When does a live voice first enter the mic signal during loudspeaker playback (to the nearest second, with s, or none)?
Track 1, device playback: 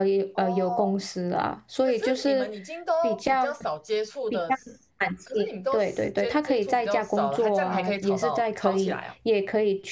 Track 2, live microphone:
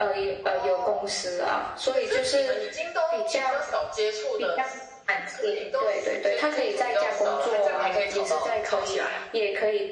none